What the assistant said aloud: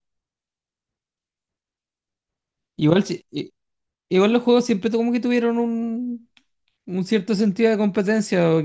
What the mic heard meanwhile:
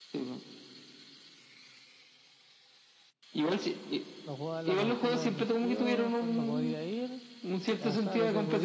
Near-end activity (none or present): present